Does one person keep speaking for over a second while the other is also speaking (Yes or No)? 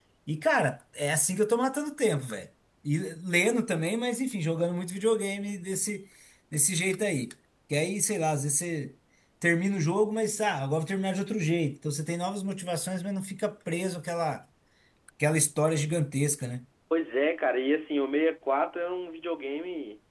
No